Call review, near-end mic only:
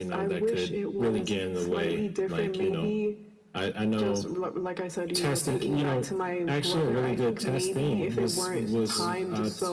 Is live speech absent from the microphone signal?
No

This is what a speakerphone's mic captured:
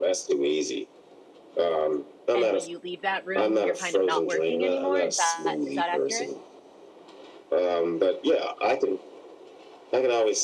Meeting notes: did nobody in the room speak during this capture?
No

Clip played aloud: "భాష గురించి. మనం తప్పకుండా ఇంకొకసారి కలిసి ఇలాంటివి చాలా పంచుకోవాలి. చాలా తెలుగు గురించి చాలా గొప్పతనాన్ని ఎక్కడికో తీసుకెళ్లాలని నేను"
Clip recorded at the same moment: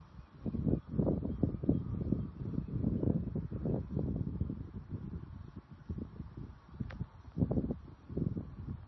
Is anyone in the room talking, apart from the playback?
No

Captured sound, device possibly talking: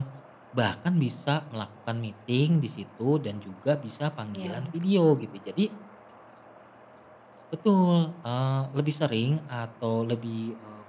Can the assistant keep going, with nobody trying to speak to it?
No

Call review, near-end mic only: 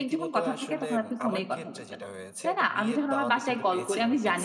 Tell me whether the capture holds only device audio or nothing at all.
No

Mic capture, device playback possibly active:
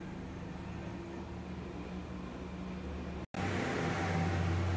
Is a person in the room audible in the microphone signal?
No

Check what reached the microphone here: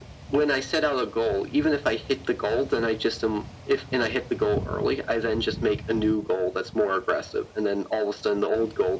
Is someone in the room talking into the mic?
No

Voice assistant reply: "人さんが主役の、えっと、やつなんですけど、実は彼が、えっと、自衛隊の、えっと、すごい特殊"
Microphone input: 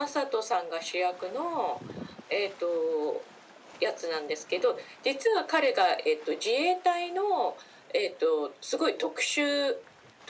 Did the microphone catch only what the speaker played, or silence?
Yes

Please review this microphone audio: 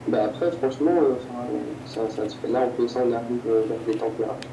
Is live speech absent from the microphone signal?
Yes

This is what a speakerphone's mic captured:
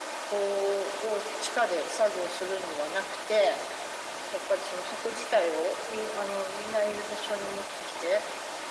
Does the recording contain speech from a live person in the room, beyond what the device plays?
No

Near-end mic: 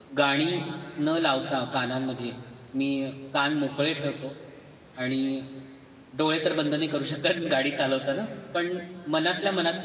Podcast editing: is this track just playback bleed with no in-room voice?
No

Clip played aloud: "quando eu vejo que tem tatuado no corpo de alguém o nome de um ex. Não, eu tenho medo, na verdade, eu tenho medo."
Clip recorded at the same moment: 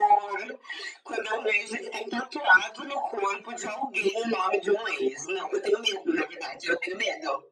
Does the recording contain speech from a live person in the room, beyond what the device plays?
No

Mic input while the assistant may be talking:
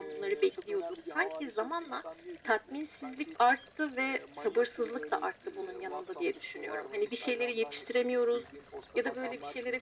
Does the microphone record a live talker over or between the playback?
No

